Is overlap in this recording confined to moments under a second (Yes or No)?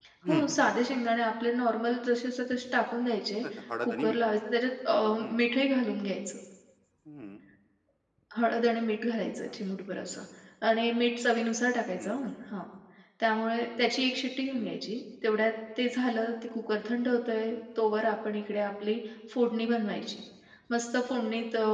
Yes